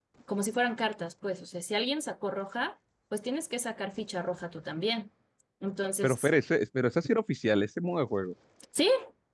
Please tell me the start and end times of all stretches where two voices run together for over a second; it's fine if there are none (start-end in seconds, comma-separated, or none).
none